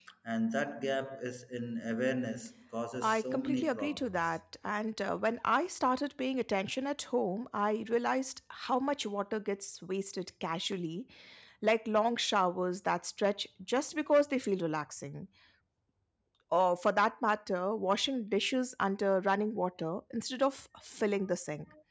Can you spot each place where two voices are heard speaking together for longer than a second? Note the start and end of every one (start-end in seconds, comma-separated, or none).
3.0-4.4